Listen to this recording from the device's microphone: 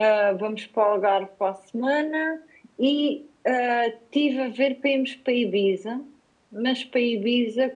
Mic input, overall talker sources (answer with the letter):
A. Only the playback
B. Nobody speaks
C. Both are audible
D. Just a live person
A